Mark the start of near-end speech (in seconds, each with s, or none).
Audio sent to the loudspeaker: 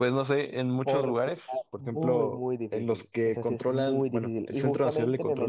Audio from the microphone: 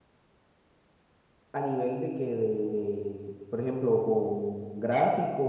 1.5 s